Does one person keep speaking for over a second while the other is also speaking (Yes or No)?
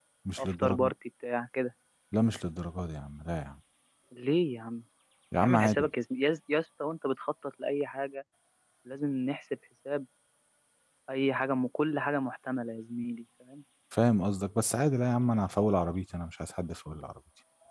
No